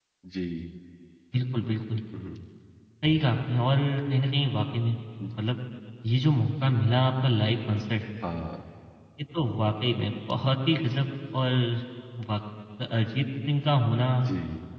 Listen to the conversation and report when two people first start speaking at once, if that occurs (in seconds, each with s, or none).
none